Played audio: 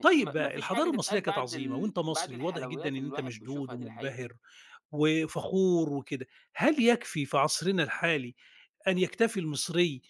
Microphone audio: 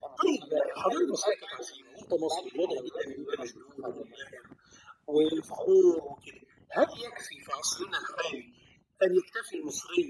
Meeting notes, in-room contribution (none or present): none